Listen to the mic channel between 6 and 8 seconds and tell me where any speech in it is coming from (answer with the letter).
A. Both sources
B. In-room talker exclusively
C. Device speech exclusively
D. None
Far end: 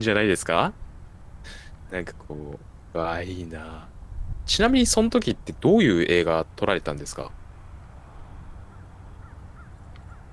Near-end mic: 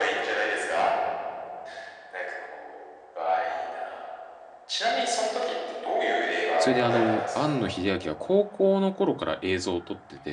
A